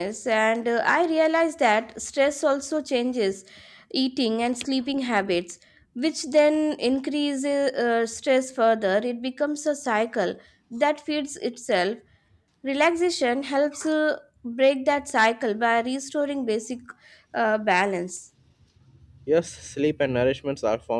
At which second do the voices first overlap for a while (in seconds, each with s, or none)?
none